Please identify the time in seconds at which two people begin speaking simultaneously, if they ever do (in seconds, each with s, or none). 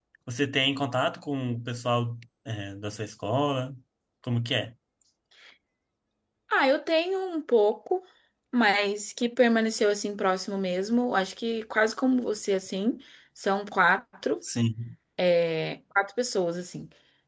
none